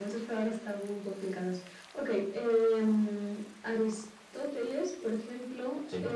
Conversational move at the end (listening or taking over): listening